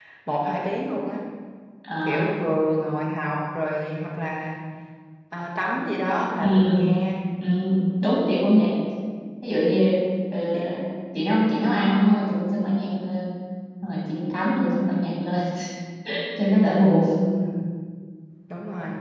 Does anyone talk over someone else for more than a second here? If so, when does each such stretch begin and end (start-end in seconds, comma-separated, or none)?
none